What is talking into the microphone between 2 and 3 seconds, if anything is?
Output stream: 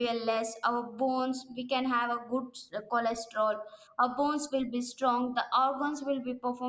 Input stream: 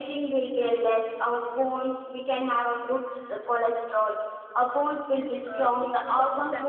echo only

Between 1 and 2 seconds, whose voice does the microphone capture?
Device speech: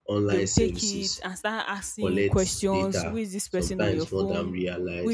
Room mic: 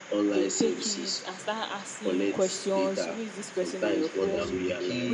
echo only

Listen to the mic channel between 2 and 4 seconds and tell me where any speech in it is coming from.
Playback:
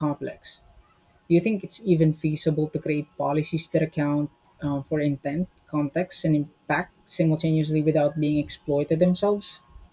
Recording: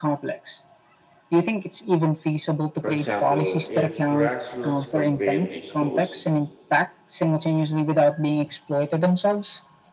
both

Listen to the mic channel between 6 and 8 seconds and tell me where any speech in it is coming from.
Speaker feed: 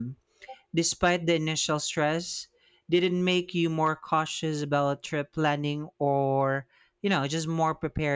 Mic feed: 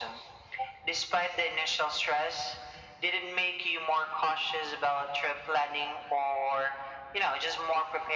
echo only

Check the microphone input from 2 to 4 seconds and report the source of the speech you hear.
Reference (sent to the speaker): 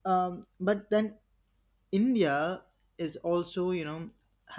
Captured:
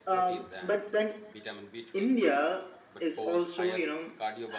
both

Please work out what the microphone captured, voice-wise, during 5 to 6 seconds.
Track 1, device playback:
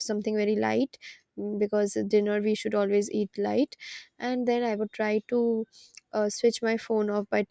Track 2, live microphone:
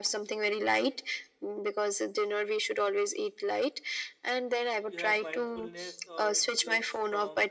both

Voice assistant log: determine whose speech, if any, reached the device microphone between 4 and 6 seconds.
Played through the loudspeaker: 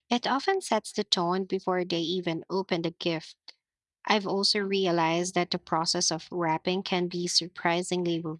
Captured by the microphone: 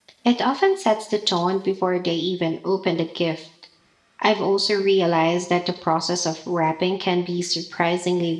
echo only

